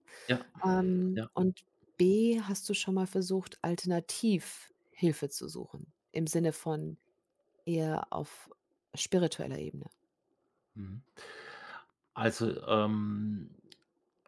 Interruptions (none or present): none